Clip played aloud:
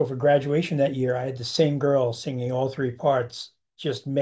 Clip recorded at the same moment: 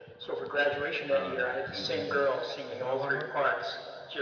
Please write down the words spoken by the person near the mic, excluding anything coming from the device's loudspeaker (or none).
Um, do you think the students took it a lot harder?